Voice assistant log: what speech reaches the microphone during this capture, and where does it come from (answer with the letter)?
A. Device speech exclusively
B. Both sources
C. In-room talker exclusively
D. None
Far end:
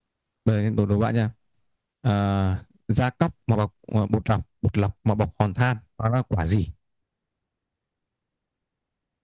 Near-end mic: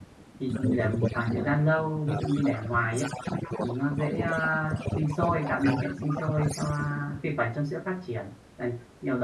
B